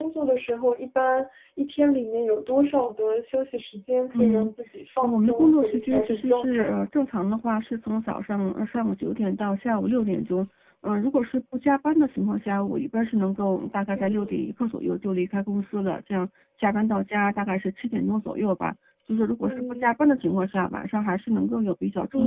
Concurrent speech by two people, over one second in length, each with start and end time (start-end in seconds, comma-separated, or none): 5.0-6.7